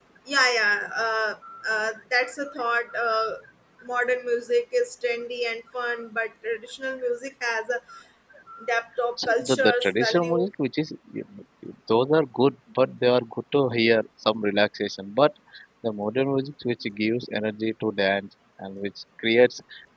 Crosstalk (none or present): present